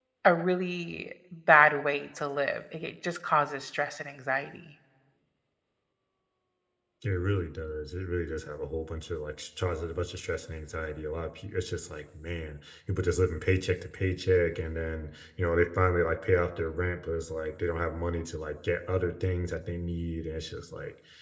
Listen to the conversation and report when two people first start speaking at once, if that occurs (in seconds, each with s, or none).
none